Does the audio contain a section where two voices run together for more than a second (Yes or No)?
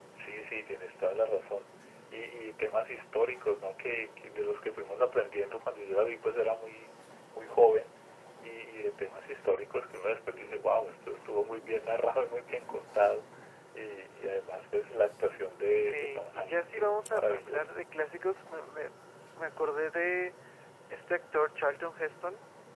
Yes